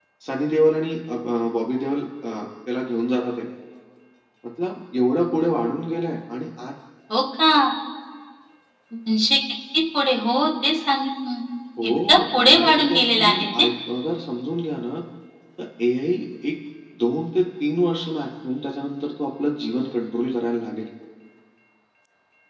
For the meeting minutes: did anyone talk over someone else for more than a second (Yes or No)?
Yes